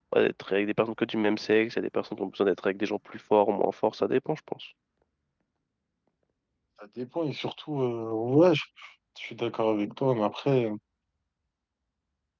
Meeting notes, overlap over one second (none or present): none